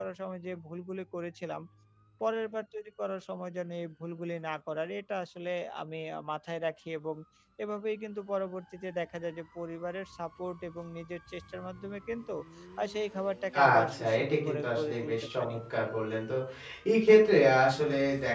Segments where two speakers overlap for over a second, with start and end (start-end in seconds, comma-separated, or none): 13.6-15.6